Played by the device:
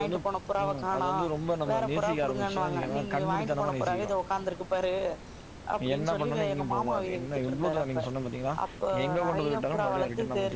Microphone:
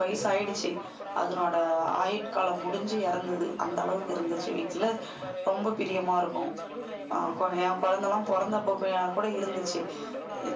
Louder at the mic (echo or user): user